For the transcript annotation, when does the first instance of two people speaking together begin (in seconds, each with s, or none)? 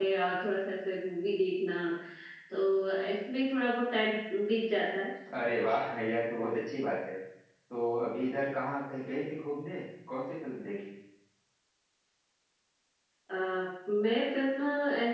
none